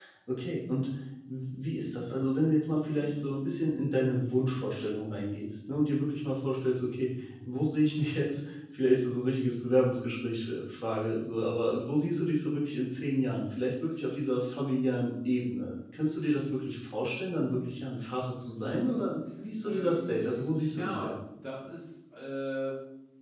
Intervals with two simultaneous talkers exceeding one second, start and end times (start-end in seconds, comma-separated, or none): 19.6-21.2